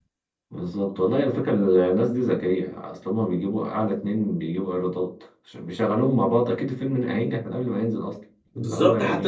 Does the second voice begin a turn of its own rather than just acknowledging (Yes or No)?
Yes